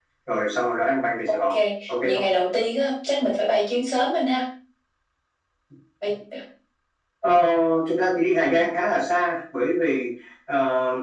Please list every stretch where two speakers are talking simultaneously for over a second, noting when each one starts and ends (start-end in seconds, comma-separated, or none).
none